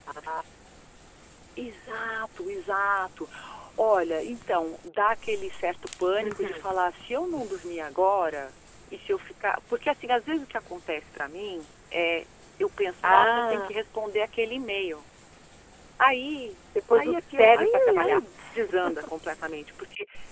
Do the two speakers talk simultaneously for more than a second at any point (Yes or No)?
Yes